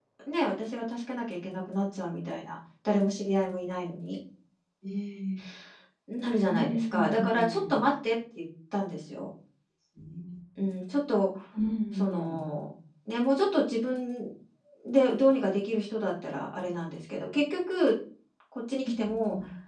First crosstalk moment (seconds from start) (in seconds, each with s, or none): 6.5 s